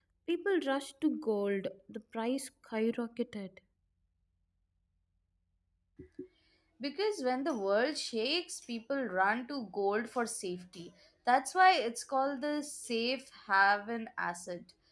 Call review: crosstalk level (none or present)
none